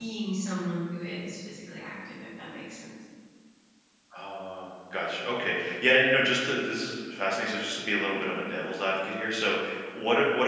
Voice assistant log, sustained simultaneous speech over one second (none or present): none